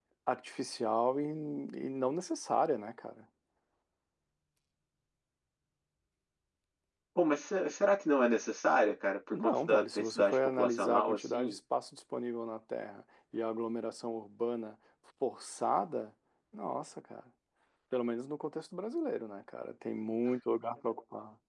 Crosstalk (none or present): present